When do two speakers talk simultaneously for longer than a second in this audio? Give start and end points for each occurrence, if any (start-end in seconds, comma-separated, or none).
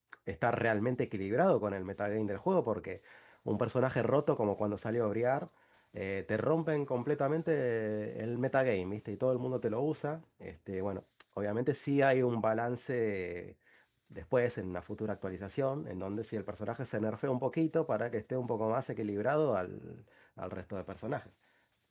none